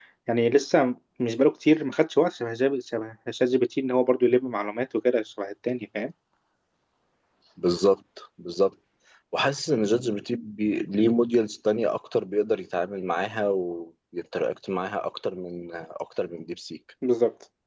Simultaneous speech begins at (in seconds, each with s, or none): none